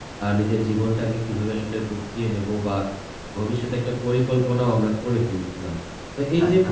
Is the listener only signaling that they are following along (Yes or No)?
Yes